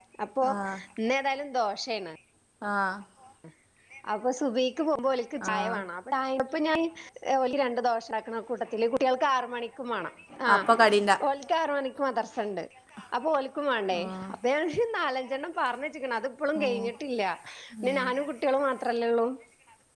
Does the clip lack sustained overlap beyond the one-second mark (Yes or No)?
Yes